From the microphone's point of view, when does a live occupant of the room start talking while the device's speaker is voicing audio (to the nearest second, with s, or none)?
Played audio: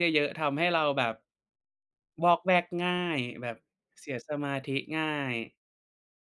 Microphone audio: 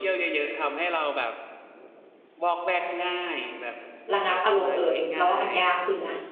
4 s